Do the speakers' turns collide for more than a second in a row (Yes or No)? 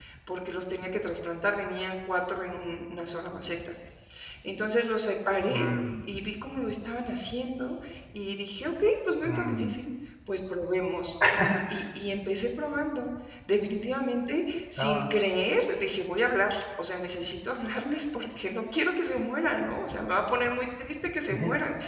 No